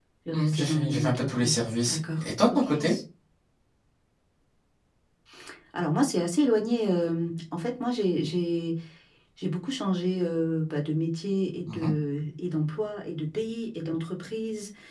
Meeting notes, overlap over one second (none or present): present